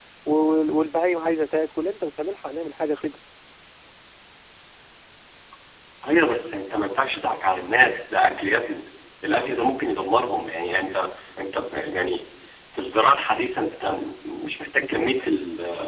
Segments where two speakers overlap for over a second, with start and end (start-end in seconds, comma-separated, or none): none